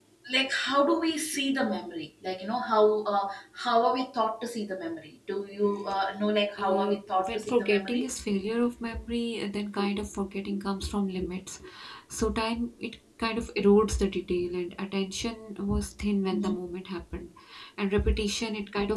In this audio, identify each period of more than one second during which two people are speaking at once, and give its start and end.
6.6-8.0

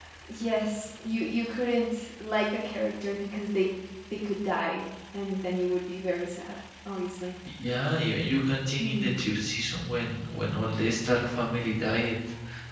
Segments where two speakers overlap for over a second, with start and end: none

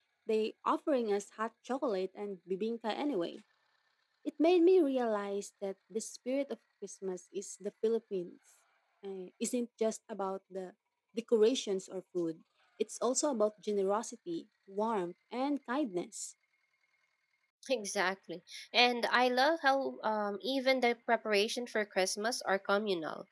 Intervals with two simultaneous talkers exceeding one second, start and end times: none

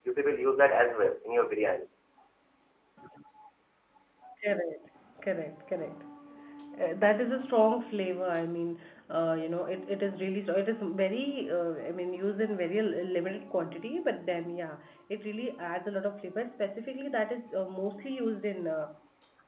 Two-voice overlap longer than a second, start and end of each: none

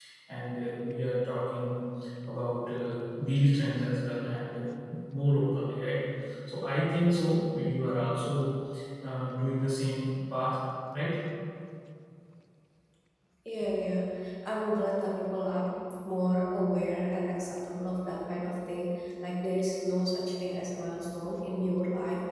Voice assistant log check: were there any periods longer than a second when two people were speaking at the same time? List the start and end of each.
none

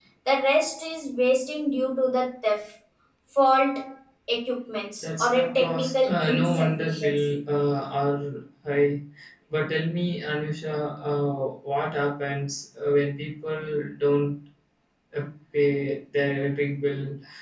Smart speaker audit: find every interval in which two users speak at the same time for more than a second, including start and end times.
5.0-7.4

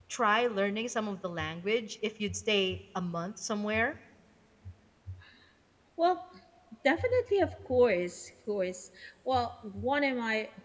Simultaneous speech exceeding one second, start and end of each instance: none

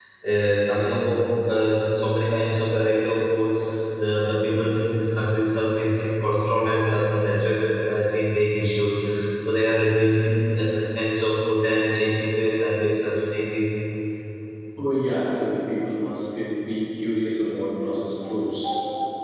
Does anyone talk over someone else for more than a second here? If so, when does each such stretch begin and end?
none

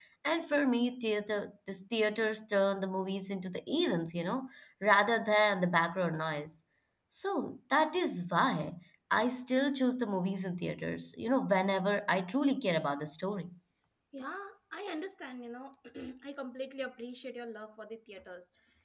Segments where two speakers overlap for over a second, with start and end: none

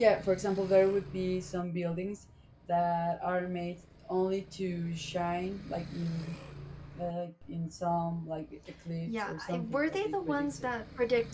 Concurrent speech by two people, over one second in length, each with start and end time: 9.1-10.7

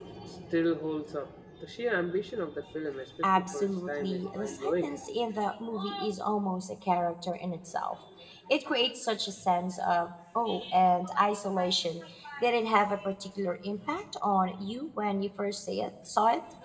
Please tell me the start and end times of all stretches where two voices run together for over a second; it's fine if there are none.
3.2-4.8

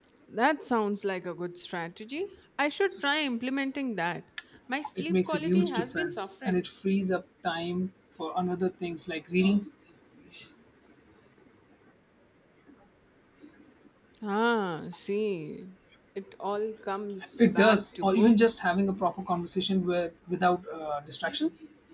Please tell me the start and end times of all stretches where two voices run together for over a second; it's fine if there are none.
5.0-6.7, 17.6-18.8

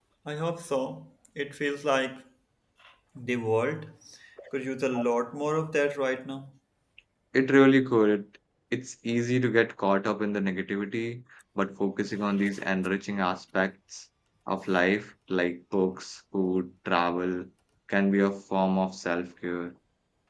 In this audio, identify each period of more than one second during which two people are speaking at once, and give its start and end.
none

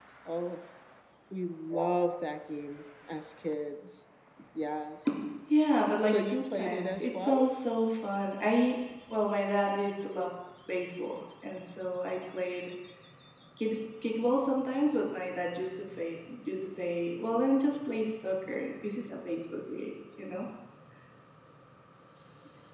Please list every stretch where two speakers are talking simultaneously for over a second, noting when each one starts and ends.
6.0-7.5

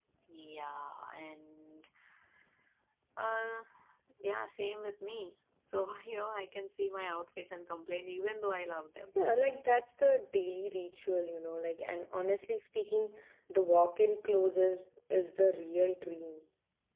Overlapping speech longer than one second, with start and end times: none

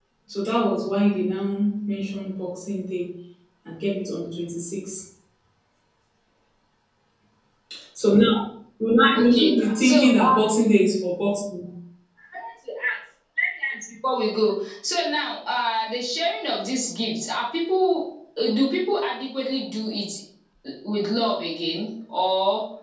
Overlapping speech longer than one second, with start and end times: 9.1-10.4

